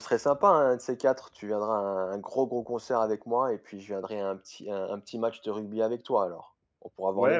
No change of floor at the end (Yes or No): No